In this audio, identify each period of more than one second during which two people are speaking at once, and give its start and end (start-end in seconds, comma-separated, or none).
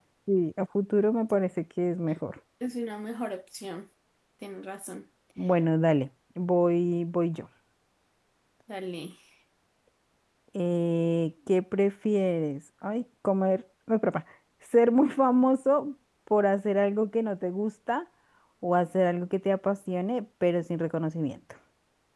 none